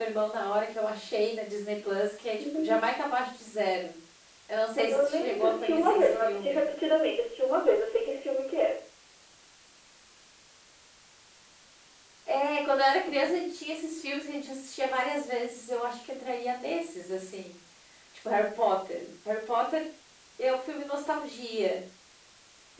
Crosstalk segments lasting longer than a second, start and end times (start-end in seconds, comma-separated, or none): 4.9-6.6